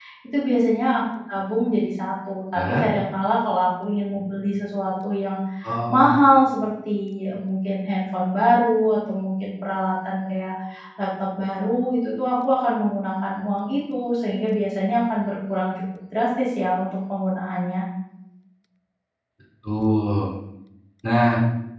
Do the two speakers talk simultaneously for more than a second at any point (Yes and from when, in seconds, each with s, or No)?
No